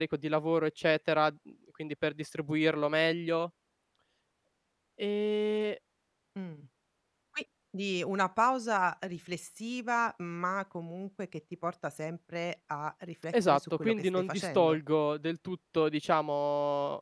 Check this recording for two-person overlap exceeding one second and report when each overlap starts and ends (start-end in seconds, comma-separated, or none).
13.5-14.8